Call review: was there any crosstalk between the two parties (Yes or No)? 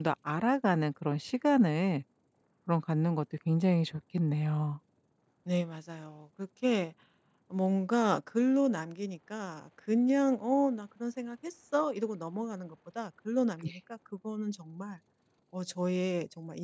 No